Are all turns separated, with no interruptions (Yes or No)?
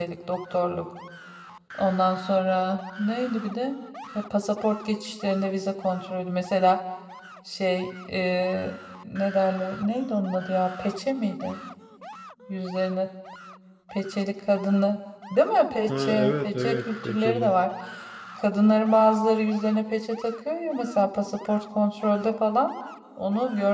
No